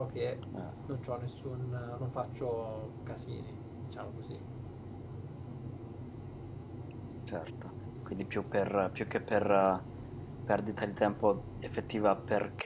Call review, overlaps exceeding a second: none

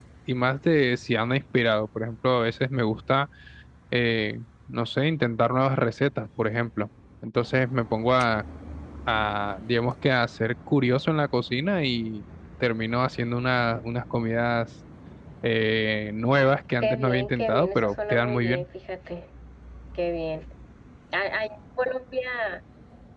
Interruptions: present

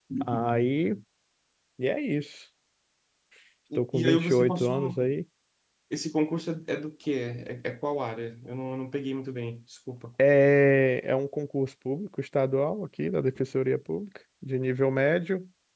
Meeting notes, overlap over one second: present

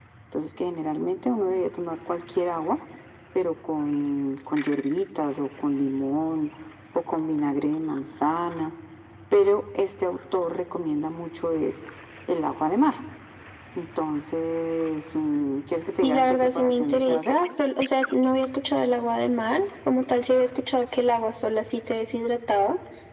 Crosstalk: present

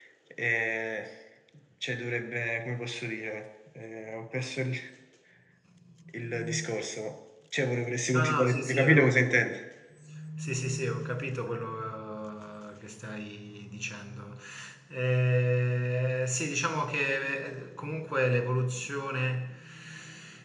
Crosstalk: present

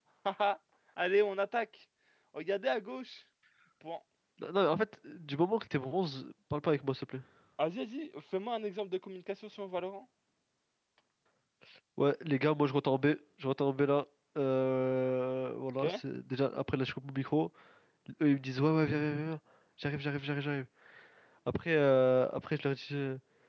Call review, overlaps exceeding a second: none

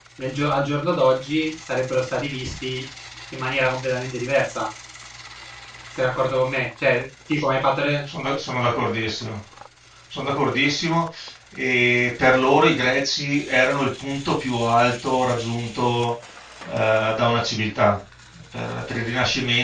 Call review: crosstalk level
none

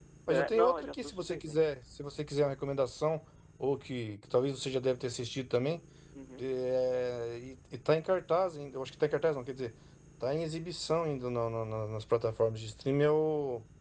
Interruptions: present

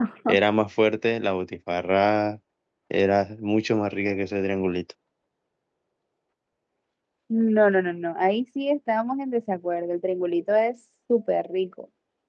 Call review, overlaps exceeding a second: none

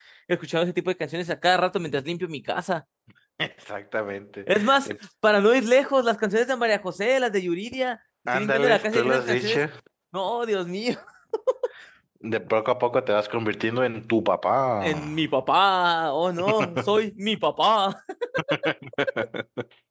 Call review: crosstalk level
present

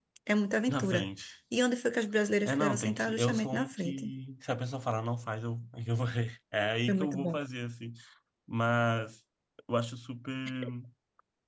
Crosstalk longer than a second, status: present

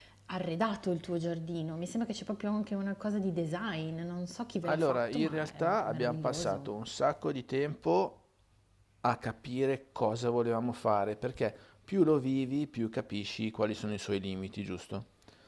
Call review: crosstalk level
present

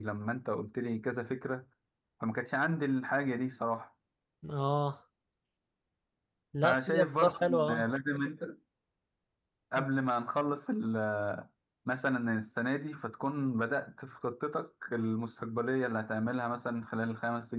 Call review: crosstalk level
present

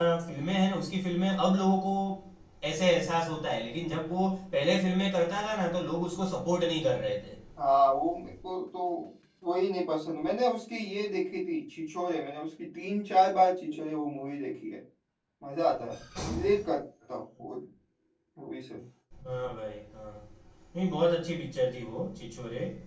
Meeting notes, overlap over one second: none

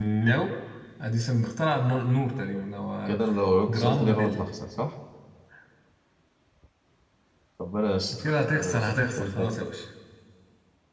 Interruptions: present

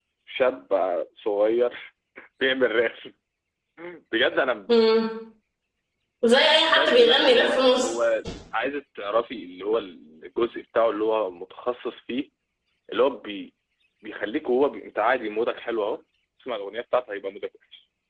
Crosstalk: present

